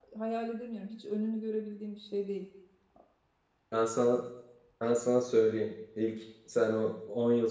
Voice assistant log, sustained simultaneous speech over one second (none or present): none